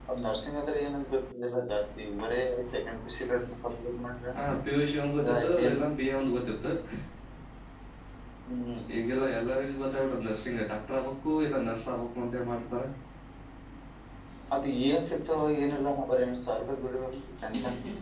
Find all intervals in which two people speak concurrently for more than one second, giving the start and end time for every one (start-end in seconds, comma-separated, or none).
none